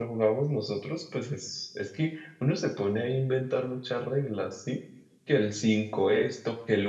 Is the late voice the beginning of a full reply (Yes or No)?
No